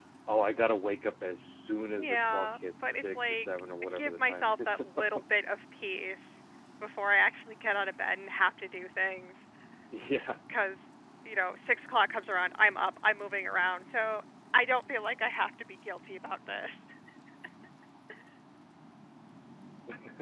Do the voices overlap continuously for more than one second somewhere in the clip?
Yes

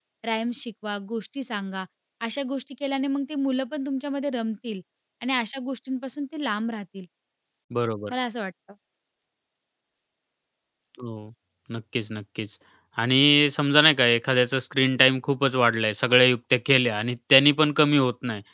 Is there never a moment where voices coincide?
Yes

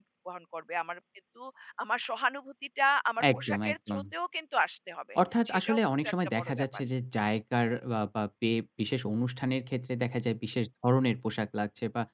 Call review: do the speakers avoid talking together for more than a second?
No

